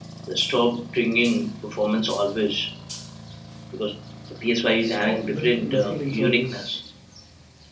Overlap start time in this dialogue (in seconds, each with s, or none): 4.8 s